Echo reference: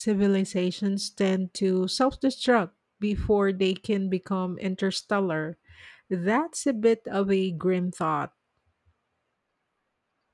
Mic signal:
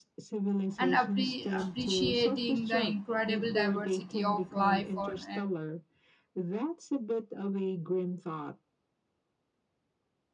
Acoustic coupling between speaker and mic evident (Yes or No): Yes